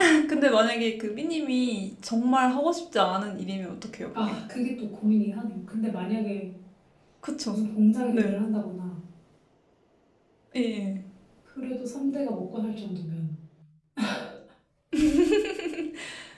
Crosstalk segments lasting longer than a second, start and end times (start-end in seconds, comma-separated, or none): none